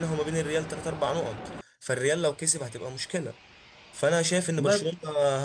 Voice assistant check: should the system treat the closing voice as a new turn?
No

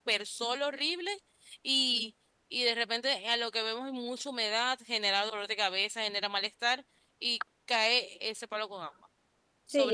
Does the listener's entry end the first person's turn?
Yes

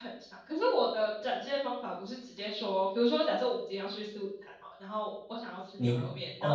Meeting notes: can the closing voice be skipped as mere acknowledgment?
No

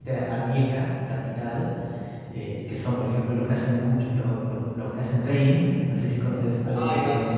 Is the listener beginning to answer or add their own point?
Yes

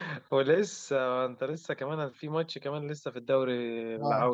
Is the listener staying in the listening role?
No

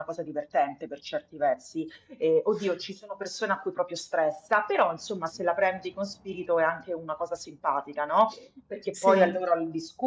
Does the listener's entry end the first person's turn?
No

